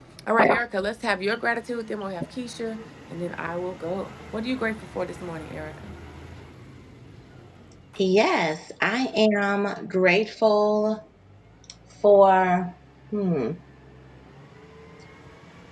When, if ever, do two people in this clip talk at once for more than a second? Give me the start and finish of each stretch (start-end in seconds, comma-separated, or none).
none